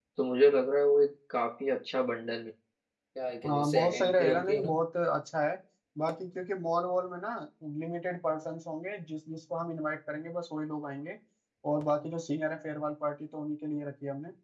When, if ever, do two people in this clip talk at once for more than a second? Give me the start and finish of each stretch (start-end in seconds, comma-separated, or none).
3.5-4.7